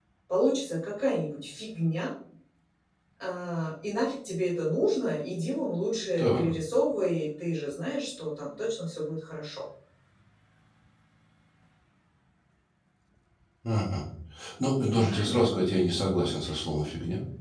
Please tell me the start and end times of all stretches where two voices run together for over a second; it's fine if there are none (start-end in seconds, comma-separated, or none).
none